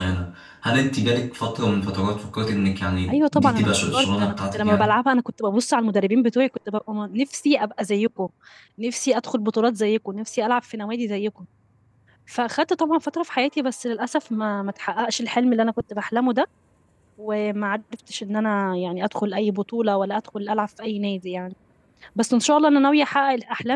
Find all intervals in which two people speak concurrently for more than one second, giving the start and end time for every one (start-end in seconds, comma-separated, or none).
3.1-4.9